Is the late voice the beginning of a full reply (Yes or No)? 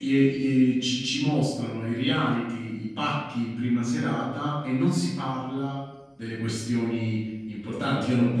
No